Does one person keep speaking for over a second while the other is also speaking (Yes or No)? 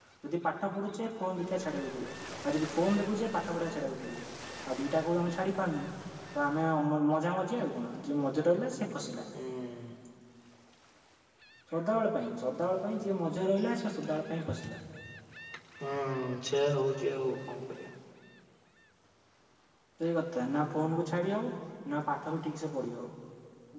No